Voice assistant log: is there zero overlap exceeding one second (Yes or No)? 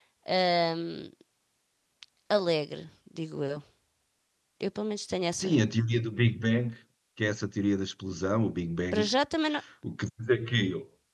Yes